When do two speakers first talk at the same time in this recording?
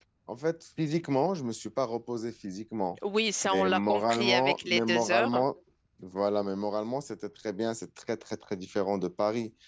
3.4 s

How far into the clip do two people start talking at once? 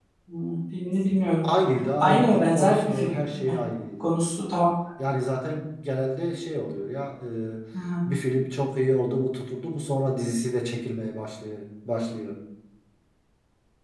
2.0 s

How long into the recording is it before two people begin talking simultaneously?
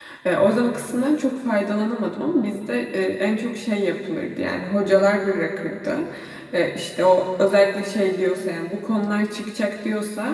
none

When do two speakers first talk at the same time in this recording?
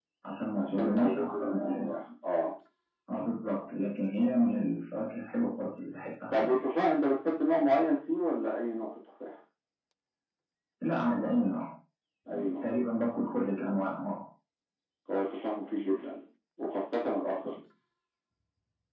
0.6 s

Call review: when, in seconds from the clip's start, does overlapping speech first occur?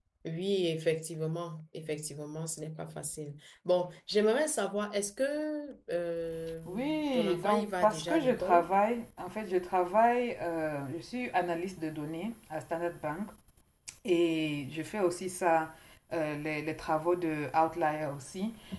6.5 s

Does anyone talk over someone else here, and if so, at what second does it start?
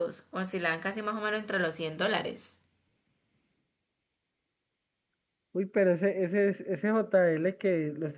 none

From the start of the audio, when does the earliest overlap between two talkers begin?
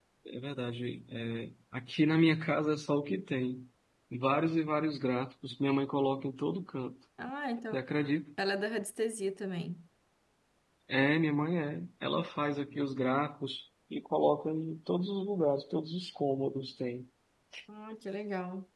none

